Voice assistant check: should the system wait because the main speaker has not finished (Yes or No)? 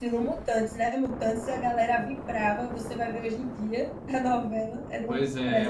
No